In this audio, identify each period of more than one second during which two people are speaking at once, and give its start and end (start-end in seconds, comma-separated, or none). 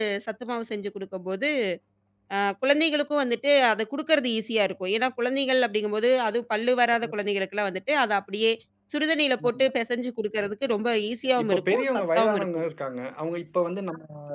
11.4-12.6